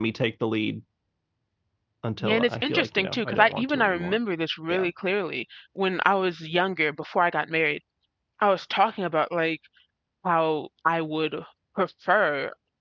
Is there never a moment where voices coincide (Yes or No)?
No